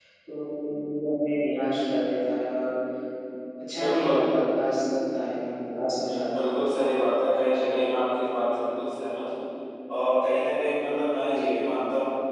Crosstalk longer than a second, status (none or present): none